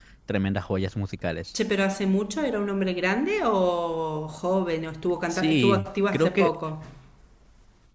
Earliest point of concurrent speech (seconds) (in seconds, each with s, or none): 5.3 s